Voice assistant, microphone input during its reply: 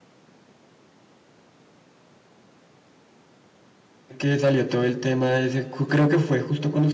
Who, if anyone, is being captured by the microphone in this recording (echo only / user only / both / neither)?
user only